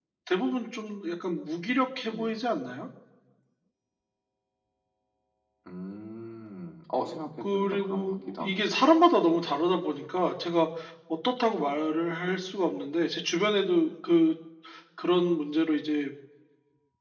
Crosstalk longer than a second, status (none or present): present